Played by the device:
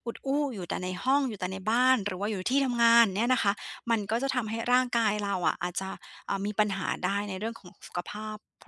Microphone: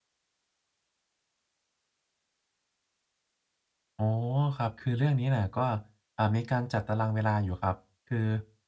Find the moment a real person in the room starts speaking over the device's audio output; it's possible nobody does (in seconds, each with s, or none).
4.0 s